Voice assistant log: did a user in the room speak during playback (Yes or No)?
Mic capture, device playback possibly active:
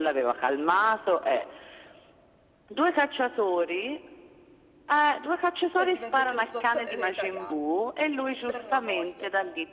Yes